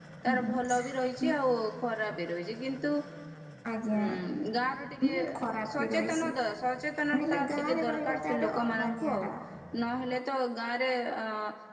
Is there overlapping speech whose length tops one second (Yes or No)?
Yes